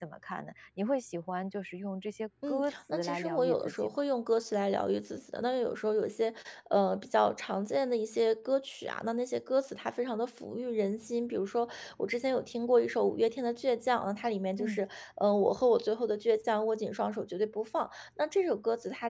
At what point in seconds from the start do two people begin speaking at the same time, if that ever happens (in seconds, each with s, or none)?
2.4 s